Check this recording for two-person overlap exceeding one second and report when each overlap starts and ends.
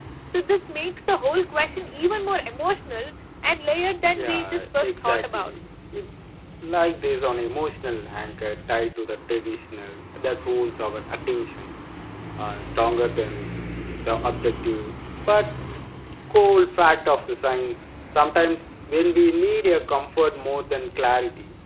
4.2-5.5

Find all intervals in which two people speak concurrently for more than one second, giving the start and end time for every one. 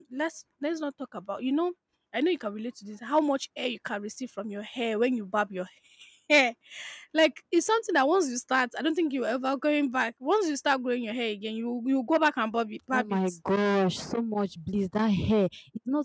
none

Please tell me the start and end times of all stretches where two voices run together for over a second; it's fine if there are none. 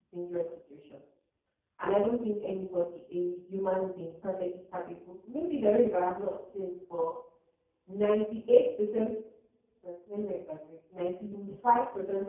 none

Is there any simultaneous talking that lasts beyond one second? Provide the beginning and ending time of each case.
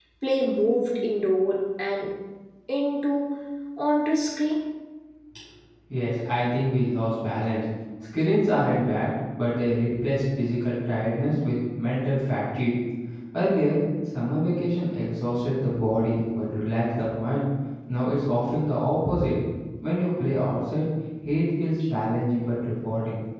none

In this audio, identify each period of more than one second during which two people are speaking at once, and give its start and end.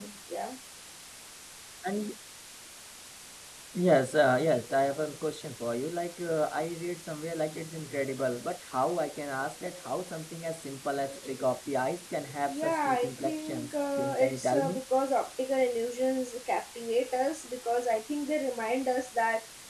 12.5-14.8

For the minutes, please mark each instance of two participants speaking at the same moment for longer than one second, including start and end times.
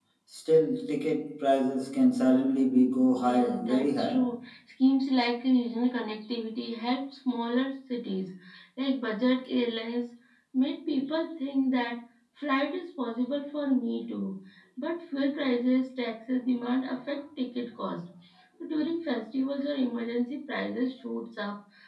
3.2-4.4

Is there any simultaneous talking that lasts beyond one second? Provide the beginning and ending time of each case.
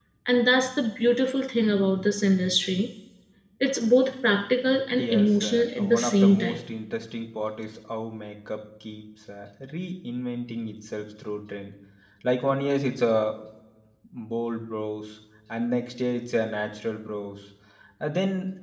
5.0-6.6

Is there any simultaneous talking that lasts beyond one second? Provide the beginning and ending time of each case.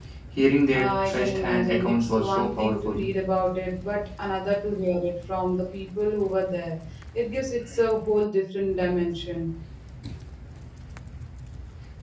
0.7-2.9

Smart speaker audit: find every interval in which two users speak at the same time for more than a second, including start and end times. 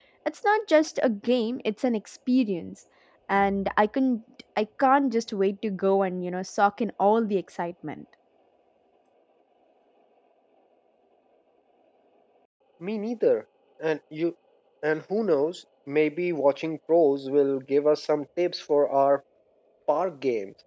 none

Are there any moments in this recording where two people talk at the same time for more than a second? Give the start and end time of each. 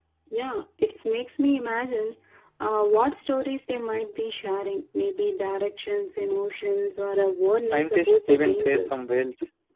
7.6-8.9

